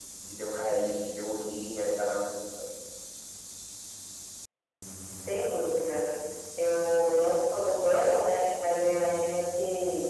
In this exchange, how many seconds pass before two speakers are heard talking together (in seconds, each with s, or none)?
none